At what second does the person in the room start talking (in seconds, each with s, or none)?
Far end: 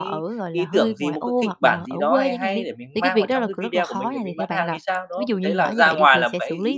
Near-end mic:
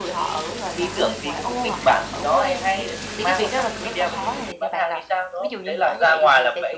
none